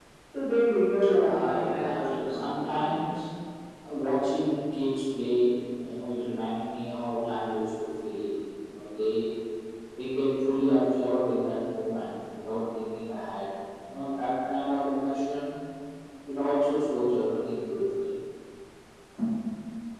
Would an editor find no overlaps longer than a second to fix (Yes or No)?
No